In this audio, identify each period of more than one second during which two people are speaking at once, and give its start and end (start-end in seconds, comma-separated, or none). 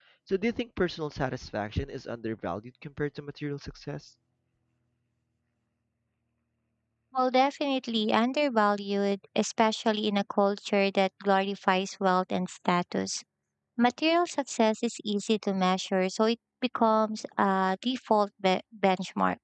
none